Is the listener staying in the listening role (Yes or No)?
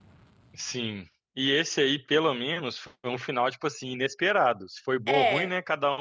Yes